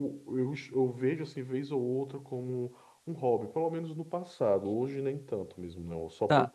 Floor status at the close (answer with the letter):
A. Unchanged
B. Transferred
B